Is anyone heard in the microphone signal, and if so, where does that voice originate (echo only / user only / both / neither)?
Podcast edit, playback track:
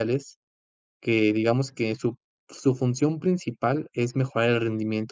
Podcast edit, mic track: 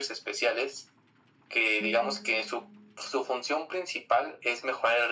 both